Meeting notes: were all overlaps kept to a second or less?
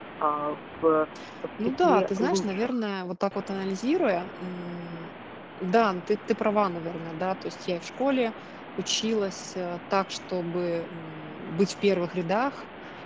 No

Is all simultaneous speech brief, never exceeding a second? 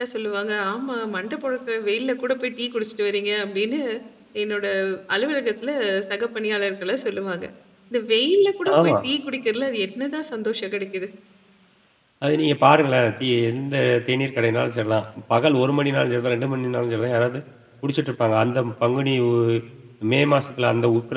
Yes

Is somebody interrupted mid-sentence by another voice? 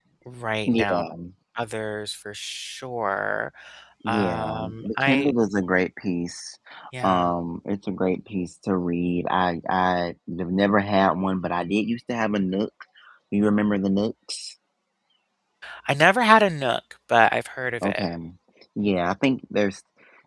Yes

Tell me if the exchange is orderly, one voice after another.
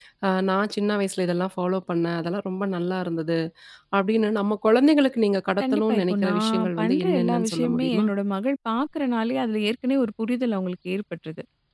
No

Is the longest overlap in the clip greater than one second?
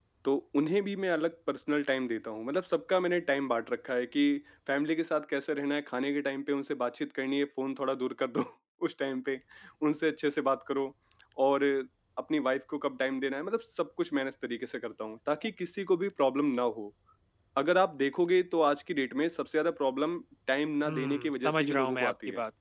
Yes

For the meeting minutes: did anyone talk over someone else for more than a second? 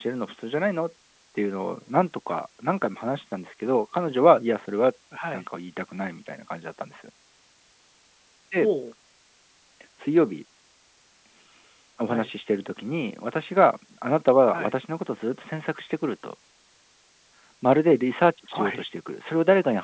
No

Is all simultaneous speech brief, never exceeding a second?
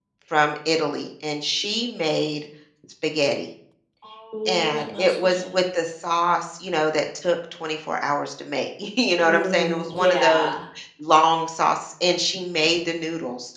No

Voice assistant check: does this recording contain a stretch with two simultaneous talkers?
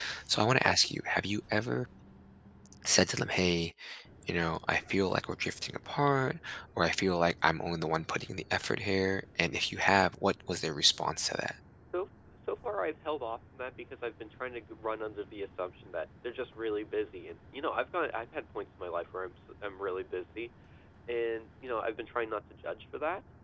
No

